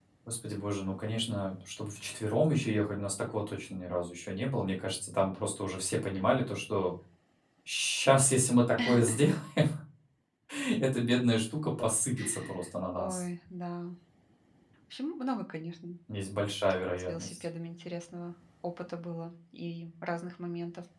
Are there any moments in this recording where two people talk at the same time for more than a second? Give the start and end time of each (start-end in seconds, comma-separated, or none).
none